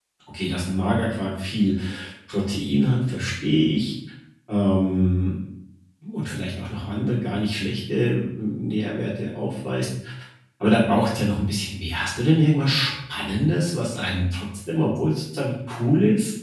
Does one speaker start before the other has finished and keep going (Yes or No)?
No